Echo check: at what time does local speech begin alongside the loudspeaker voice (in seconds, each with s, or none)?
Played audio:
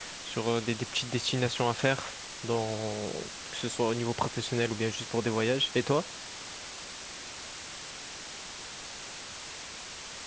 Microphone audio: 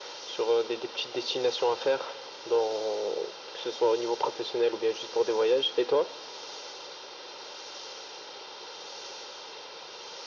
none